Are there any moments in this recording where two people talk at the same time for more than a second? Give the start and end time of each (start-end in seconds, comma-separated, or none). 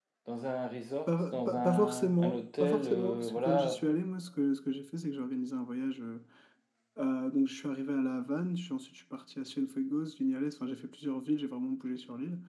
1.1-3.8